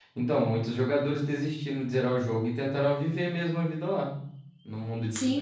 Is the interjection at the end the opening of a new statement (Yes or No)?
Yes